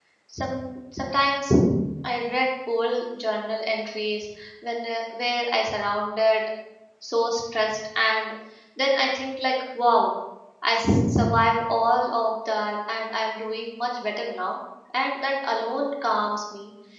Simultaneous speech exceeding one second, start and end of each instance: none

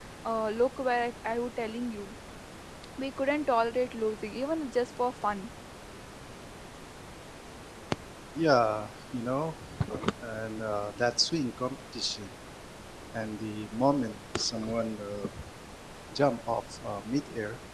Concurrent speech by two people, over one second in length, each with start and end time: none

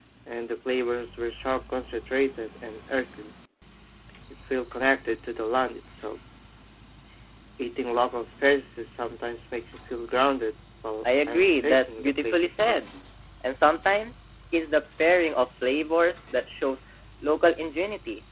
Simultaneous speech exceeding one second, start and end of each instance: 11.3-12.8

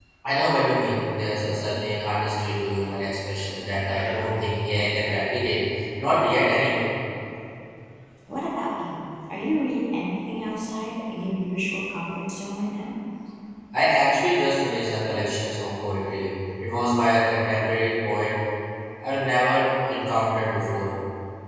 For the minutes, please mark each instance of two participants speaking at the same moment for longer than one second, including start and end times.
none

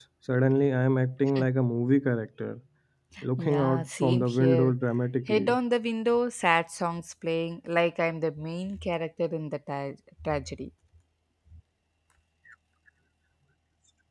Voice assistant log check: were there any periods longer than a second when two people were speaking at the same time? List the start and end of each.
3.4-4.7

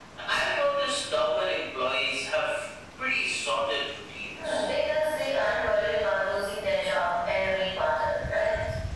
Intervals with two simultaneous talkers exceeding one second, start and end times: none

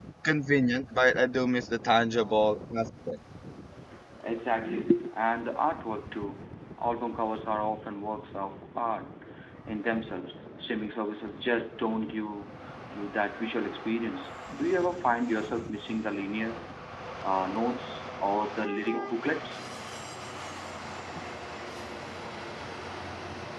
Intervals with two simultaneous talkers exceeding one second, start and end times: none

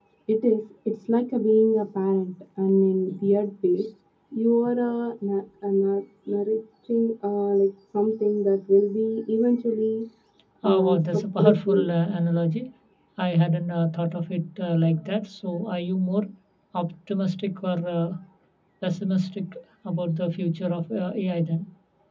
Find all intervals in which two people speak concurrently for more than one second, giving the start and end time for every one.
10.6-11.8

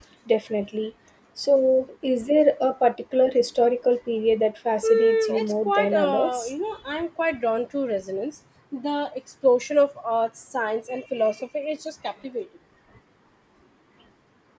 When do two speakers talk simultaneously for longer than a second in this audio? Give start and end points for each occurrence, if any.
4.8-6.5

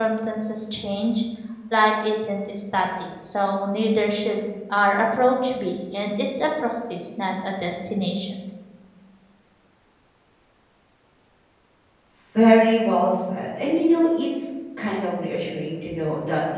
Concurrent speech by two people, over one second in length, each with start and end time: none

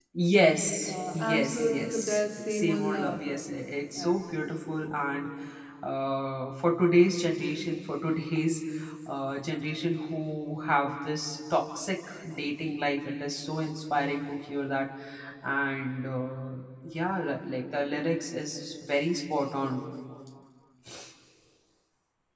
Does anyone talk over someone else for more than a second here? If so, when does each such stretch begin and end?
1.1-3.2

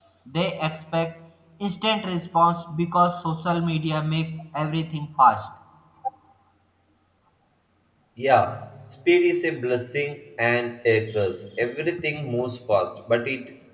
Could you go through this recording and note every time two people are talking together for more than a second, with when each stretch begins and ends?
none

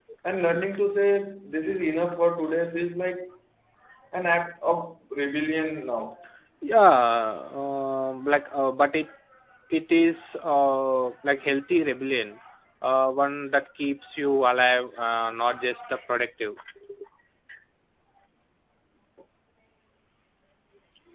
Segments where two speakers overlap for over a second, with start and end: none

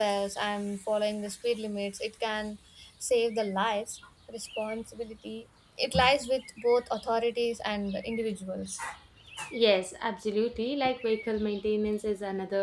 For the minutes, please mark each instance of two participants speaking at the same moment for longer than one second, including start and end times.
none

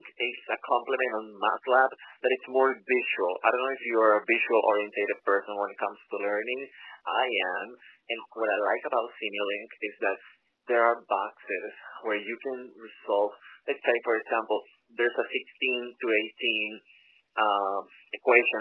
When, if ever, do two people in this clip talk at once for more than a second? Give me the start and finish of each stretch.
none

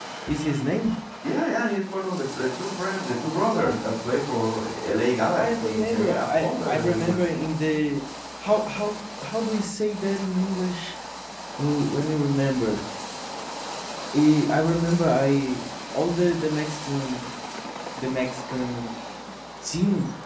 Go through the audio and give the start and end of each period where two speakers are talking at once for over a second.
5.4-7.2

